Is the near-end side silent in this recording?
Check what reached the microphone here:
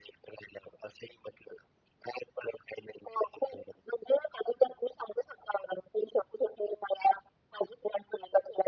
Yes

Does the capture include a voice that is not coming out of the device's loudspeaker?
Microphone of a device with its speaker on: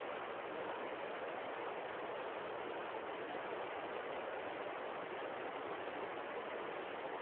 No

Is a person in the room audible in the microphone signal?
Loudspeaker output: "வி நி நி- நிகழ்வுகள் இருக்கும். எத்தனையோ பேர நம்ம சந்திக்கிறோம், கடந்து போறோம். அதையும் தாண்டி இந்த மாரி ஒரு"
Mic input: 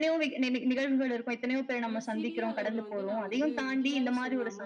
Yes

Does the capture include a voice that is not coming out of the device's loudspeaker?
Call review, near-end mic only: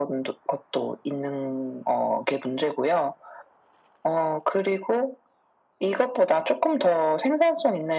No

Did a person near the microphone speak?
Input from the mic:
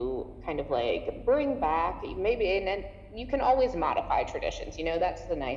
No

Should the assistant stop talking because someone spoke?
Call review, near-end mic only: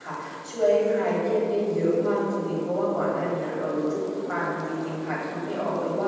Yes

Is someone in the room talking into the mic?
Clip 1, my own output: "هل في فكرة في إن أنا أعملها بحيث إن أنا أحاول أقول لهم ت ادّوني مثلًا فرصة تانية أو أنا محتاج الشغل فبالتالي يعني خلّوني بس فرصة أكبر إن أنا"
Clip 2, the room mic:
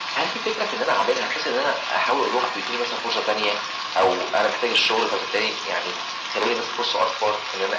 No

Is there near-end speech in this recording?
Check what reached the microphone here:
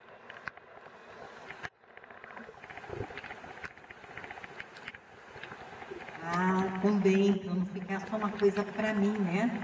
Yes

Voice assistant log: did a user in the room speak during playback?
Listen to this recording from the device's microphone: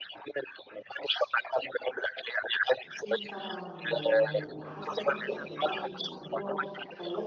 Yes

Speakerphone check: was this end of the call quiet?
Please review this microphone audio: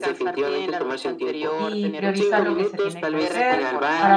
No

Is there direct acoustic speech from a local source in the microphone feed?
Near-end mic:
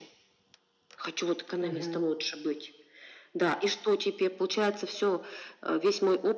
Yes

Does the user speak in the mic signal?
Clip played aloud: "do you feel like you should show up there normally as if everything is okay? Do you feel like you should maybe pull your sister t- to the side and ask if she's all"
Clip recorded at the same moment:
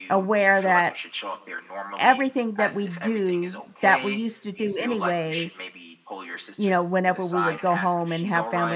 Yes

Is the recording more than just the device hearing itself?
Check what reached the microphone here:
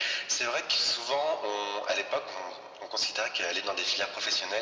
No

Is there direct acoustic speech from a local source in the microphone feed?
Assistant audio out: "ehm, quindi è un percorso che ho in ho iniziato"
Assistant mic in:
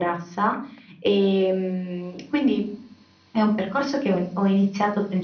No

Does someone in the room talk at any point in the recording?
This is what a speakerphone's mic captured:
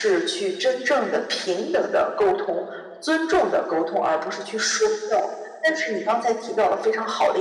No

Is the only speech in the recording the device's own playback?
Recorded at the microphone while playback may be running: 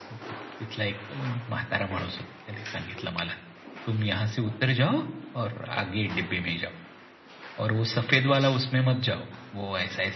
Yes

